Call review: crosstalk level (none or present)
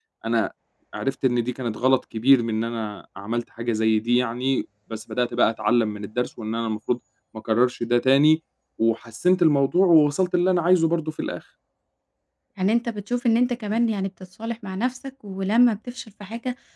none